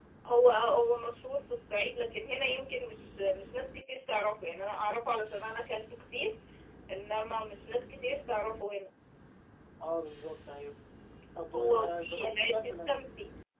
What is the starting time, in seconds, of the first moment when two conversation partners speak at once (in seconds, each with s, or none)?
11.6 s